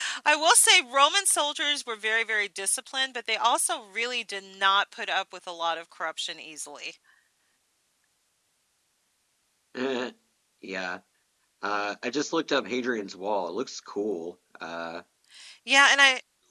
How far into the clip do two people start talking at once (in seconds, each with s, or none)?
none